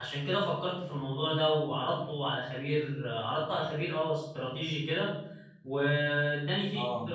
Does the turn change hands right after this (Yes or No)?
No